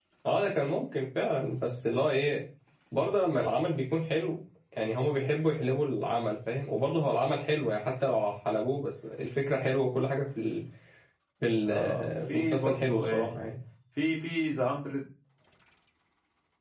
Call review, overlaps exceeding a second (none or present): present